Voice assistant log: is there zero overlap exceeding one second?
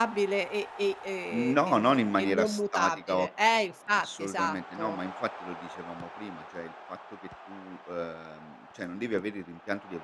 No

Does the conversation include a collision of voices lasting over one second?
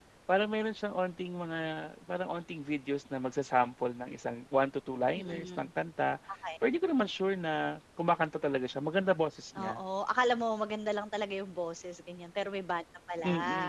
No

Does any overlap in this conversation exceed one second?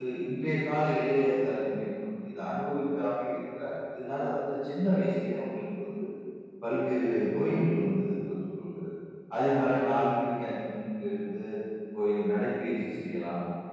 No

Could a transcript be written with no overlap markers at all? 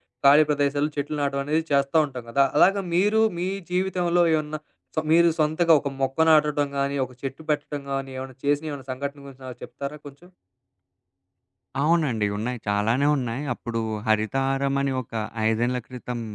Yes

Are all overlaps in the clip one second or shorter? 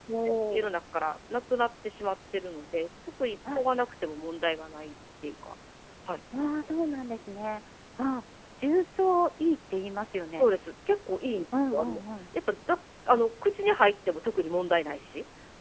Yes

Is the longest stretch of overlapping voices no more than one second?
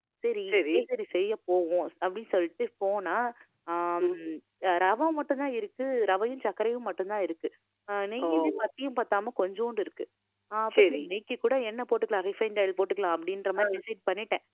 Yes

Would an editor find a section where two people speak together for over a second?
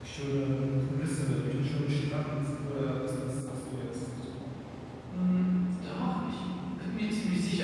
No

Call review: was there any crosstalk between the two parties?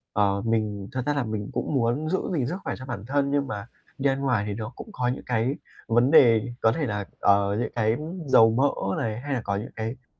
No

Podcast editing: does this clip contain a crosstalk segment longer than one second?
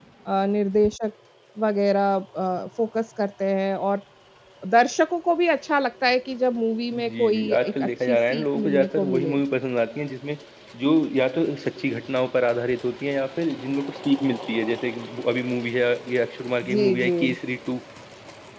Yes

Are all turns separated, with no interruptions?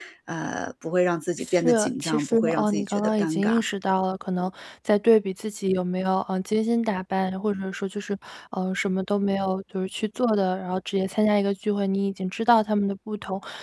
No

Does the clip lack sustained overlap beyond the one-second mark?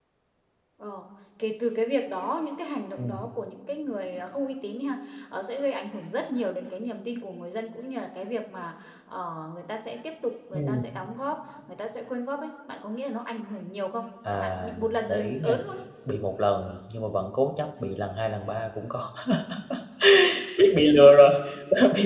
No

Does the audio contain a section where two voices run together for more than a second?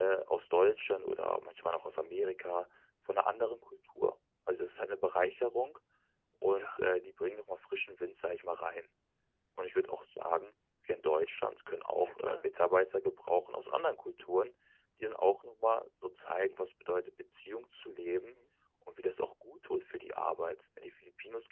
No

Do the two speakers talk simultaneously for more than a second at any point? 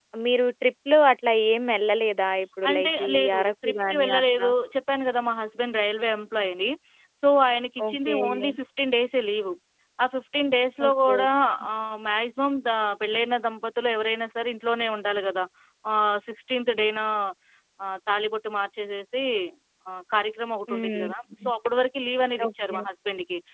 Yes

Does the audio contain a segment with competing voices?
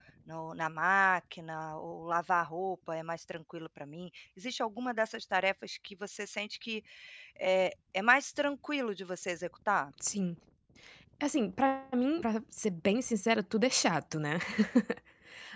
No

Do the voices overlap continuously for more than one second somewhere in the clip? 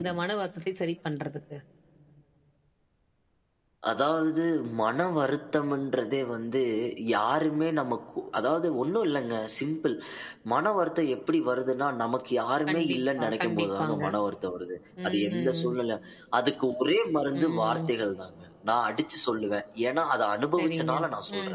Yes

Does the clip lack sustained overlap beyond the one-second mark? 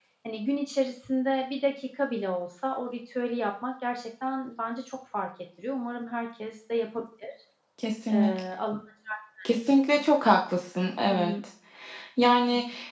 Yes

